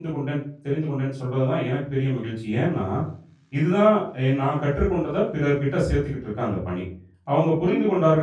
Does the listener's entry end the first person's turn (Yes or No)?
No